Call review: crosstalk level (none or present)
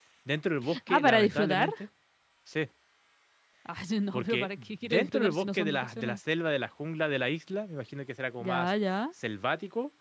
present